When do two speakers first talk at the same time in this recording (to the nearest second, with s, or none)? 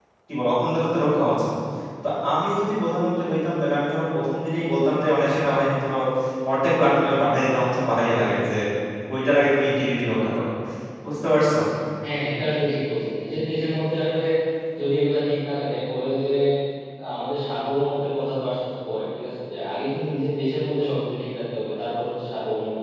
none